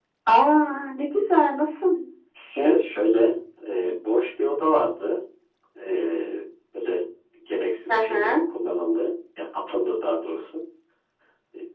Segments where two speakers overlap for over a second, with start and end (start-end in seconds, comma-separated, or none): none